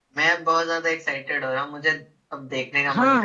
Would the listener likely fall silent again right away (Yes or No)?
No